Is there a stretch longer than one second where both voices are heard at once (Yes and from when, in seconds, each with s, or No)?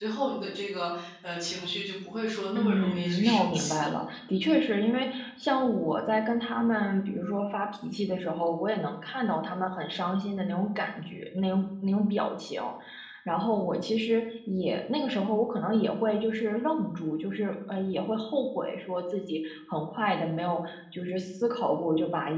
Yes, from 2.5 s